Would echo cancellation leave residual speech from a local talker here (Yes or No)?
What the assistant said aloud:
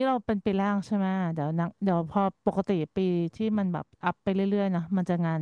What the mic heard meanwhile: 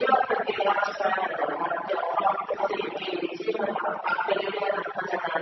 No